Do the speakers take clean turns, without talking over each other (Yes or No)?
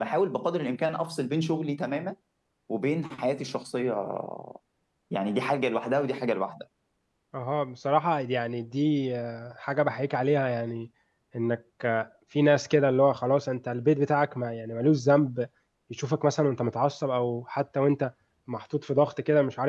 Yes